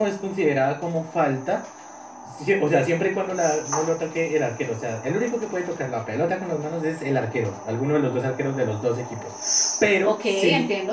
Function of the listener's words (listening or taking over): listening